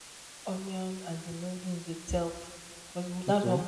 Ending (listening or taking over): listening